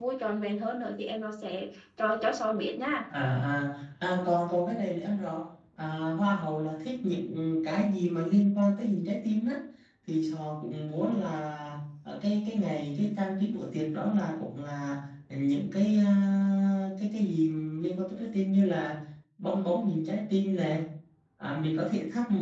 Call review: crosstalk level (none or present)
none